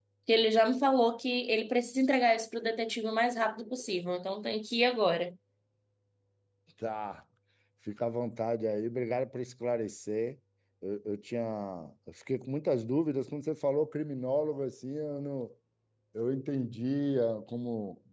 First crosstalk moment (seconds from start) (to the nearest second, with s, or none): none